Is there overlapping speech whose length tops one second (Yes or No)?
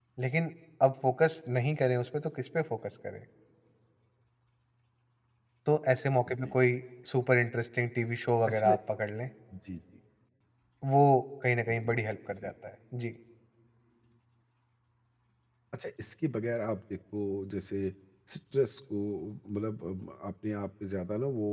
No